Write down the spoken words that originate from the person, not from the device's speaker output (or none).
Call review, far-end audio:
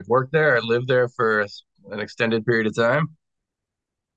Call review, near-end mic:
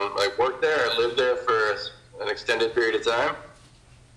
none